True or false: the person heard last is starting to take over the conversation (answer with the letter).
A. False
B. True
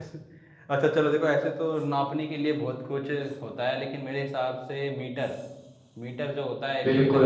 B